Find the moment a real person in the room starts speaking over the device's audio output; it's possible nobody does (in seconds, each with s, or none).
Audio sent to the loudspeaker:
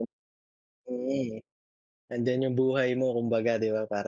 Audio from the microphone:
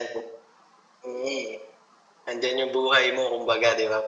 none